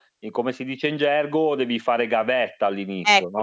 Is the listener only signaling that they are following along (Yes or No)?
No